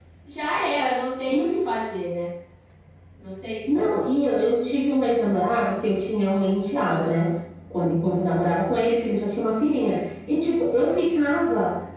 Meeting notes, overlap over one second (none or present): none